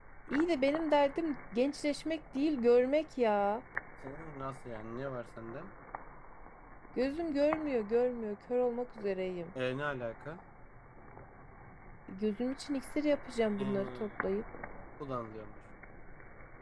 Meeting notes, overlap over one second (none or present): none